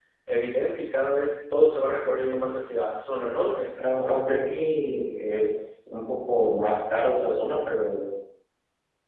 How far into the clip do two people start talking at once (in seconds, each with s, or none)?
none